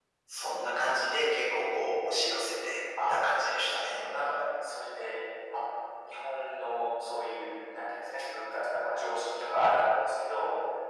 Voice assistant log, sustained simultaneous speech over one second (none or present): none